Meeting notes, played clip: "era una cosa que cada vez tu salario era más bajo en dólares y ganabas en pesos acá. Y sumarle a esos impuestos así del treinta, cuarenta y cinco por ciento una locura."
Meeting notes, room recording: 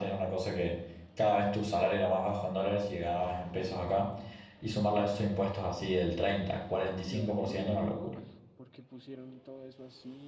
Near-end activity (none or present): present